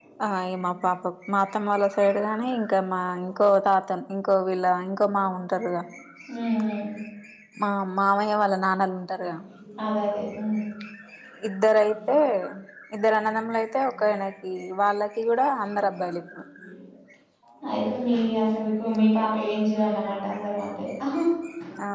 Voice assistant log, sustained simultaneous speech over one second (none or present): none